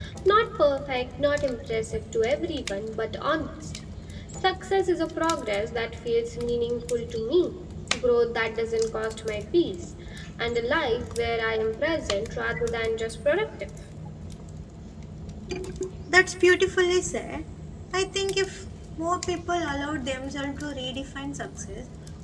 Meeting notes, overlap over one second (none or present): none